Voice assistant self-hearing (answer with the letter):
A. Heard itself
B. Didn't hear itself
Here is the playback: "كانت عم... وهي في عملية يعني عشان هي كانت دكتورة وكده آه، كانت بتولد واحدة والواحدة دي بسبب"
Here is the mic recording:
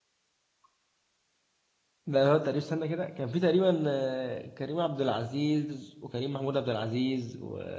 B